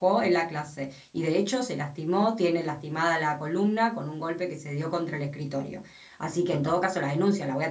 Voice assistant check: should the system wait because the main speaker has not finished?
Yes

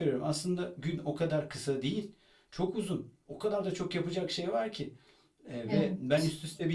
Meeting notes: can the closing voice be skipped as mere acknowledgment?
Yes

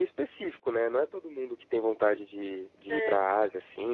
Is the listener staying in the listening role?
Yes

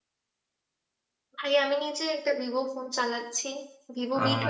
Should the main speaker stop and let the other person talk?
No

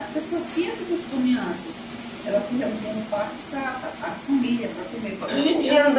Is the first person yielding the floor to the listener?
Yes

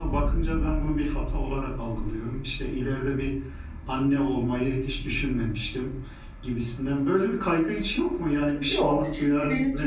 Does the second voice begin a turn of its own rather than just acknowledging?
Yes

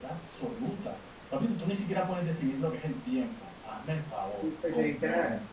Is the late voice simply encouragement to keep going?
No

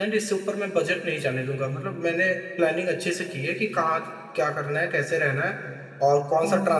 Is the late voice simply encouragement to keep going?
Yes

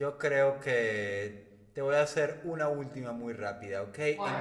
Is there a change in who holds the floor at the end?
No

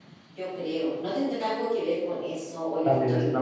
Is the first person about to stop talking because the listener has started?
Yes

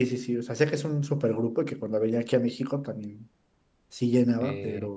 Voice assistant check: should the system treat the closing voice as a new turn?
Yes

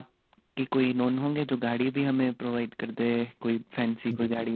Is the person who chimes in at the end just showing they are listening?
No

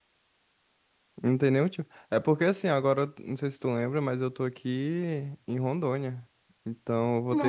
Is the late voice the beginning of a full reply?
No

